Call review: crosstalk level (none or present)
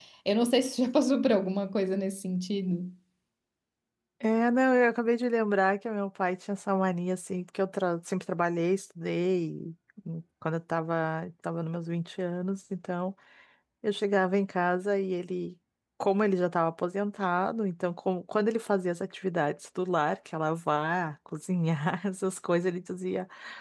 none